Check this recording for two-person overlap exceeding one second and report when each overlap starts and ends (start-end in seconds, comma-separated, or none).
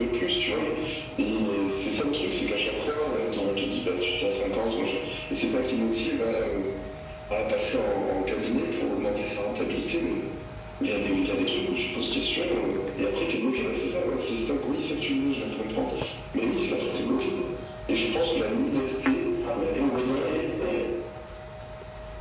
19.6-20.8